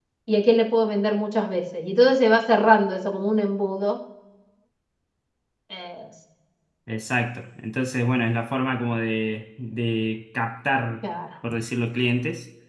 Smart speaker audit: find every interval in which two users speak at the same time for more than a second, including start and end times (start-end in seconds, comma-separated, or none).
none